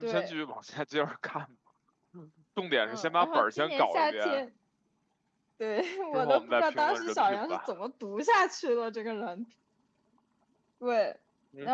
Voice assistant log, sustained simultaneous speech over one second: present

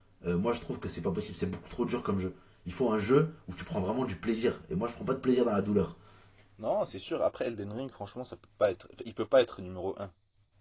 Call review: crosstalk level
none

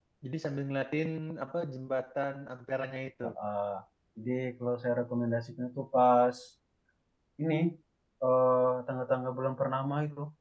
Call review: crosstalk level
none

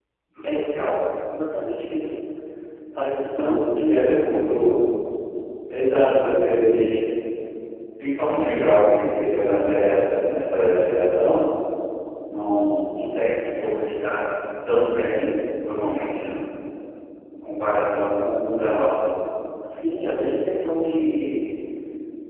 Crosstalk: present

